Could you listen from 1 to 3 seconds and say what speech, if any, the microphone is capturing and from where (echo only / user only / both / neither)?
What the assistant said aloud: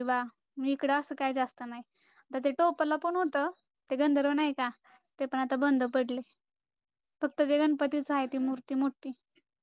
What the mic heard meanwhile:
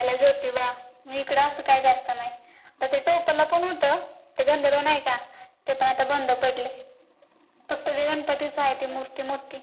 echo only